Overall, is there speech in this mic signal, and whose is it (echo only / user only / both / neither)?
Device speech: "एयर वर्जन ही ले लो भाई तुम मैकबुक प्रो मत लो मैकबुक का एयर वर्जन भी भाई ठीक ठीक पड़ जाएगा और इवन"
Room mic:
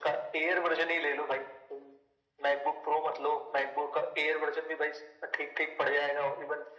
echo only